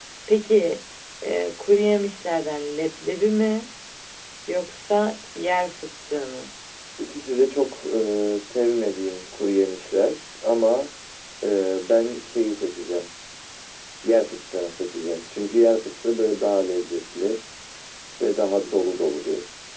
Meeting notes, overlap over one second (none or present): none